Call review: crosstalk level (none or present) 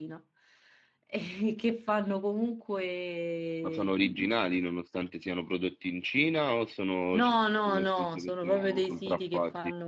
present